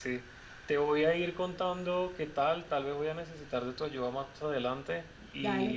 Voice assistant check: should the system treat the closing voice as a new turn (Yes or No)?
No